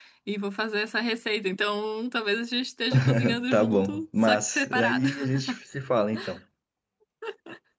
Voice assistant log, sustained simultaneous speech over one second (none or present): present